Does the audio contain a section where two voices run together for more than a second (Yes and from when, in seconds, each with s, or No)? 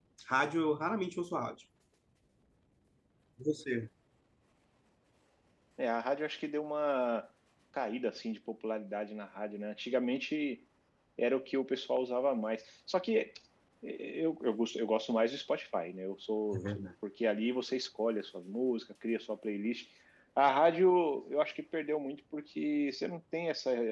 No